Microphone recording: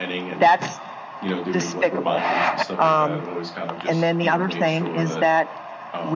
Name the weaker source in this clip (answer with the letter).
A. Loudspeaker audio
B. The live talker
B